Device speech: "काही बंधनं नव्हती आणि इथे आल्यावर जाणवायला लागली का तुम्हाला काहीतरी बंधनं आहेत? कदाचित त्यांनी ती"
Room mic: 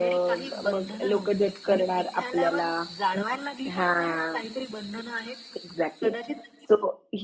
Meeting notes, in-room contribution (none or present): present